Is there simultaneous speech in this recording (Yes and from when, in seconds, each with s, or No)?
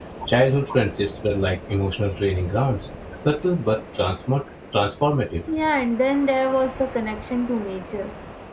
No